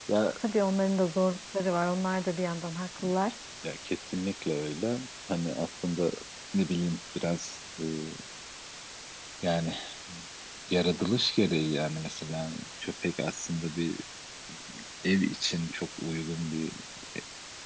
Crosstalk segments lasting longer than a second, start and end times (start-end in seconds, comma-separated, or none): none